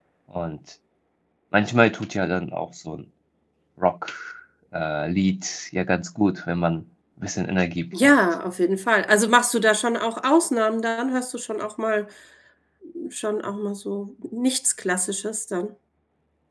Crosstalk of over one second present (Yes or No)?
No